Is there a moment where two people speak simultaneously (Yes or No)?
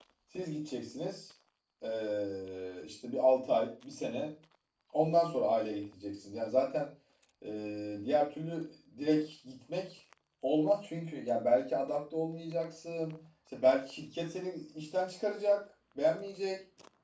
No